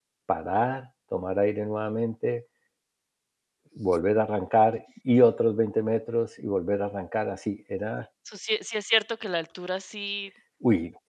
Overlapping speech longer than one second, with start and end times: none

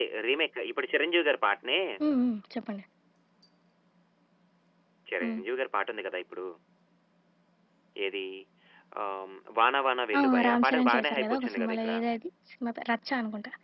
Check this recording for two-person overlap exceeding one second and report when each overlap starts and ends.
10.2-11.9

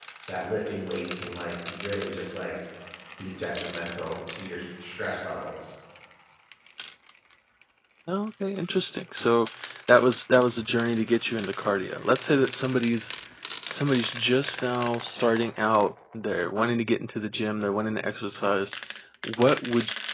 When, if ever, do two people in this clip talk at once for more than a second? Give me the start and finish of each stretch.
none

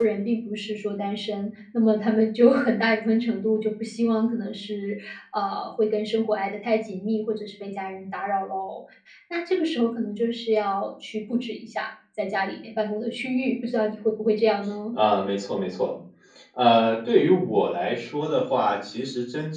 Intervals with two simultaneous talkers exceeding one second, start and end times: none

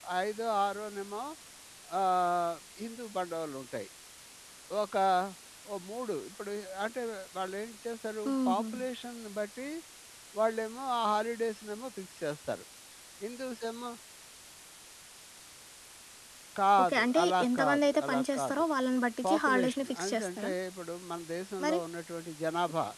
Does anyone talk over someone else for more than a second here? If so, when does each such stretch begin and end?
16.8-18.6, 19.3-20.5

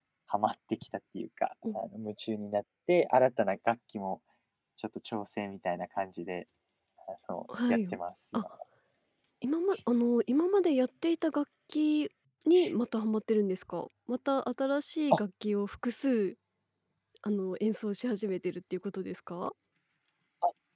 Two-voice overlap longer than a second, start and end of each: none

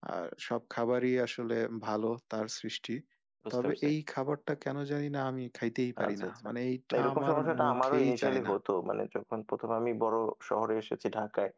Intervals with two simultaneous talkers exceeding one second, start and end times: 6.9-8.5

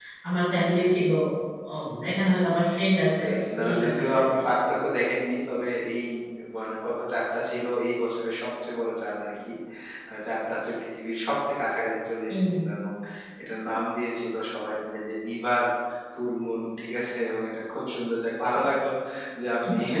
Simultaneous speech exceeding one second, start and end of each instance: 3.2-4.4

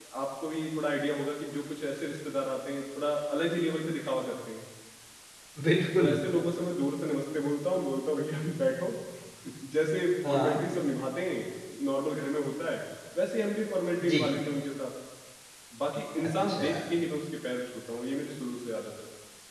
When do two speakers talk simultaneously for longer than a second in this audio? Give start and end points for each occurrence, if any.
none

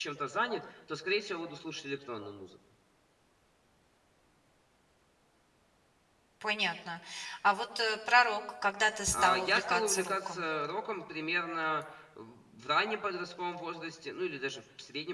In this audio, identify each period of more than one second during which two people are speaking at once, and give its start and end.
9.1-10.4

